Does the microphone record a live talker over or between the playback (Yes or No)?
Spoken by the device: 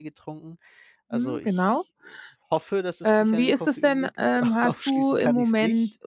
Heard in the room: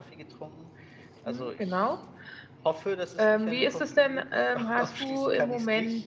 No